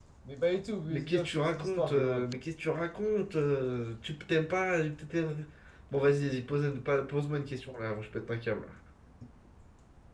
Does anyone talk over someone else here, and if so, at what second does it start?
0.9 s

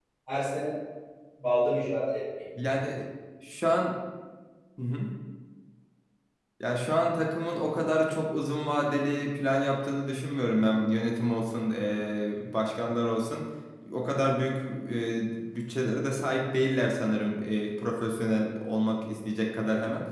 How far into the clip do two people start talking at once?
none

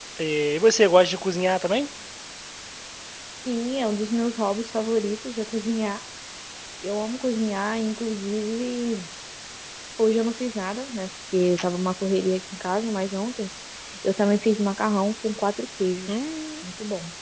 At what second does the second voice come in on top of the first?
none

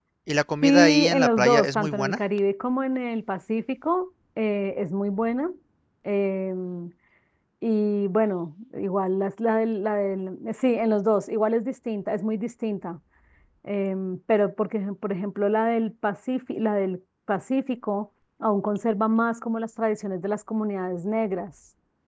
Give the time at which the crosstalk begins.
0.6 s

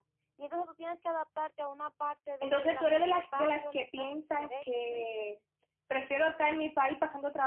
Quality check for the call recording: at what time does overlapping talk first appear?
2.4 s

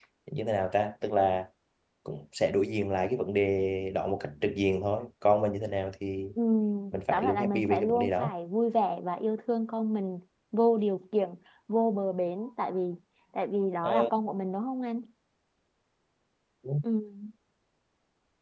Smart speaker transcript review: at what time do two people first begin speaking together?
7.1 s

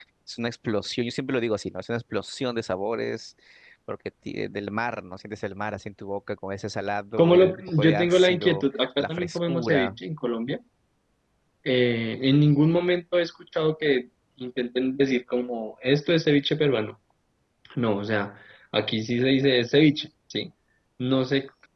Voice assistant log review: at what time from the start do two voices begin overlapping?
7.2 s

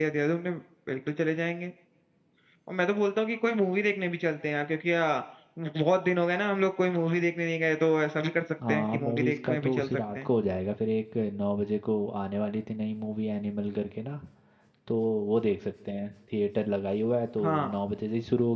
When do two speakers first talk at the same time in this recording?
8.7 s

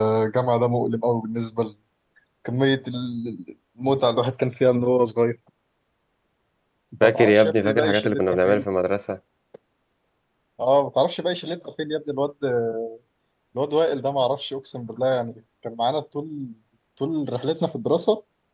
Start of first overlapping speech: 7.0 s

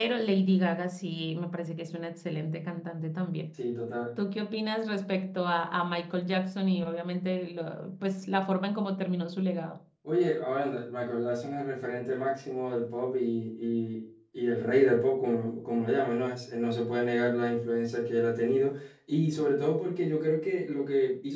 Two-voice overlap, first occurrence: none

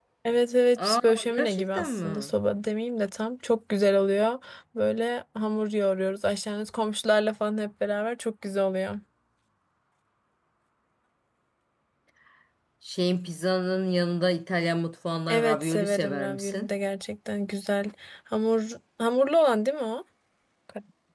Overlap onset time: 0.8 s

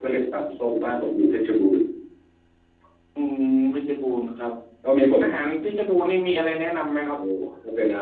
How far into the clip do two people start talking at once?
none

